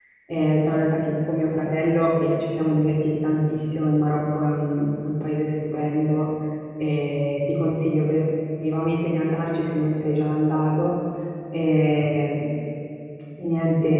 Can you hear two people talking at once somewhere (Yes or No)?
No